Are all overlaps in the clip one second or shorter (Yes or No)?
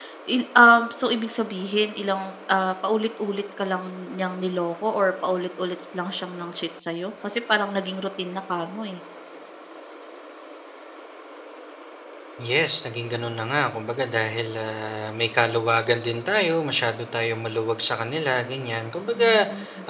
Yes